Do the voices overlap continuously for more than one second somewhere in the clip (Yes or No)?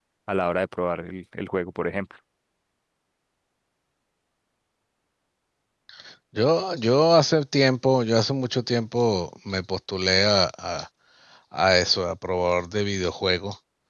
No